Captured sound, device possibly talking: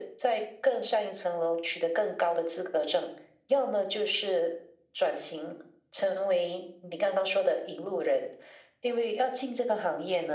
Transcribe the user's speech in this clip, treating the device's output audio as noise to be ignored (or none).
none